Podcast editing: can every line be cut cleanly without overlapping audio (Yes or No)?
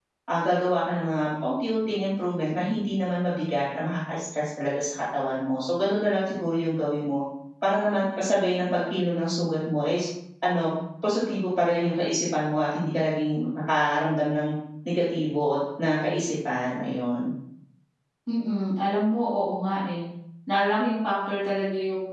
Yes